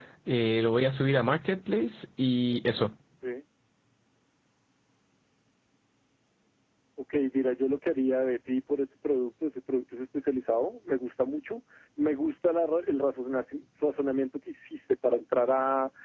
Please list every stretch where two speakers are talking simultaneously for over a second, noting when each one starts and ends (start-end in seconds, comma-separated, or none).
none